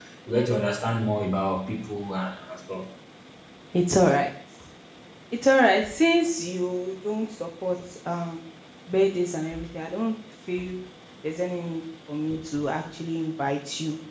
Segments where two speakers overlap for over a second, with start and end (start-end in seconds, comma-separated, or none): none